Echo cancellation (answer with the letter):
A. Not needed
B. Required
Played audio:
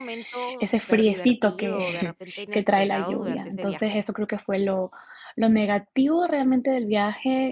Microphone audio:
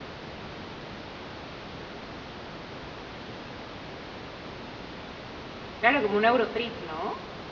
A